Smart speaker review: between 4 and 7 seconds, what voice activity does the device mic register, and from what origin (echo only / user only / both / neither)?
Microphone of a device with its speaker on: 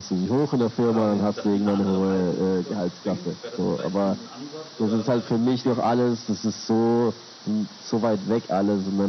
both